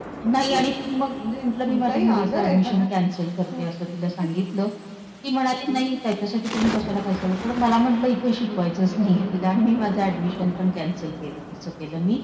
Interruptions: present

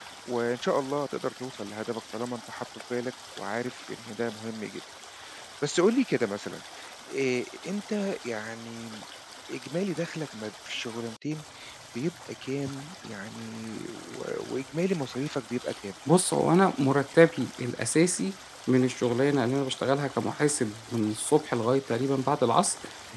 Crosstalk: none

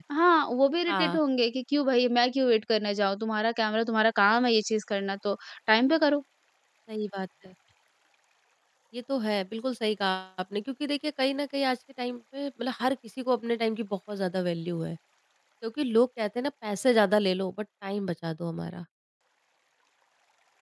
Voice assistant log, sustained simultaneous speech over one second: none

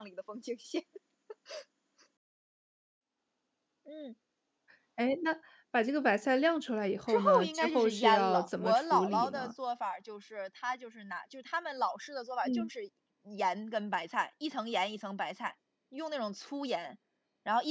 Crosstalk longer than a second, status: present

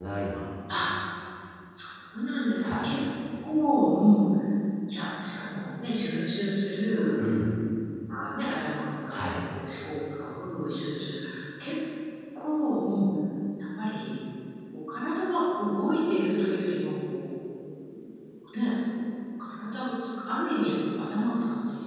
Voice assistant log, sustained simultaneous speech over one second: none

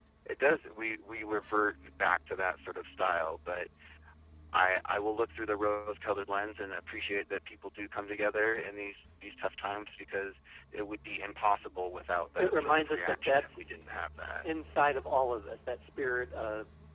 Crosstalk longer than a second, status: present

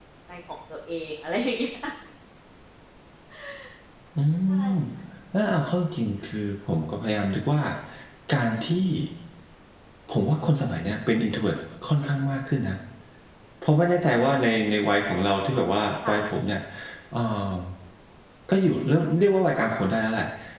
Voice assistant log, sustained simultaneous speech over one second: none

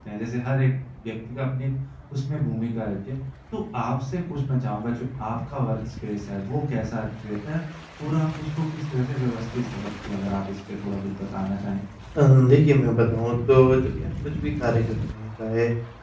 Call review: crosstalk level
none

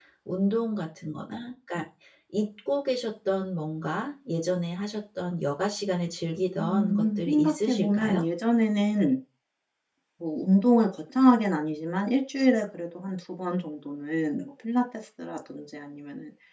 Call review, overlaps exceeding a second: present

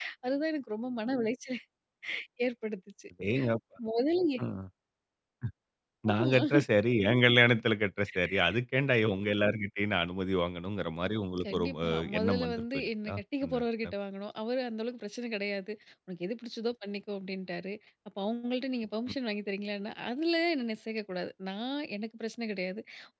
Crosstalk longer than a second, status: present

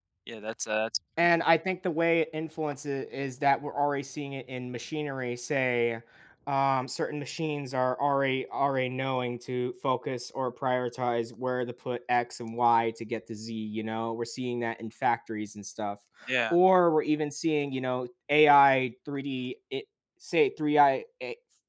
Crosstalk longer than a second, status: none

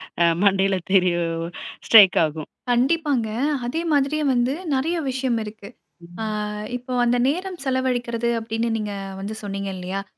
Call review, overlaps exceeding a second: none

